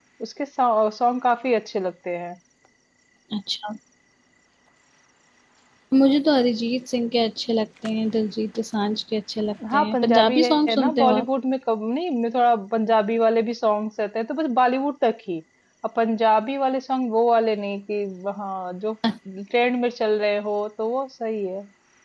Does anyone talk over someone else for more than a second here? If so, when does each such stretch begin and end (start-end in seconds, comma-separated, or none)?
9.7-11.2